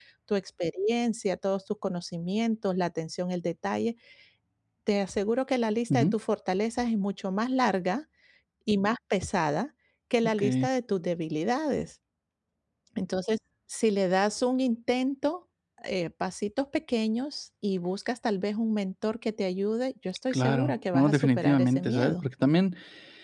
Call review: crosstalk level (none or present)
present